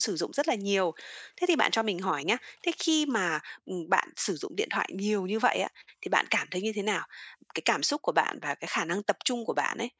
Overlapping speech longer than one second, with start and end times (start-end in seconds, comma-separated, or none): none